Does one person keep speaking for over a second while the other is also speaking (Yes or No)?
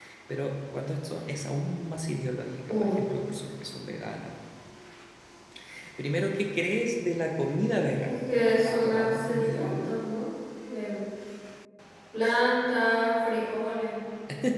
Yes